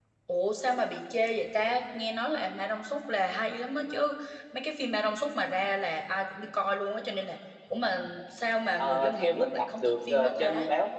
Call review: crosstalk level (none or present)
present